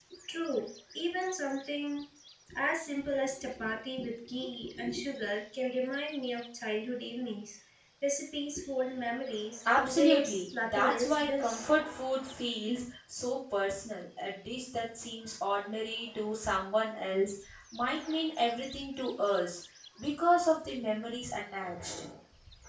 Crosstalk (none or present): present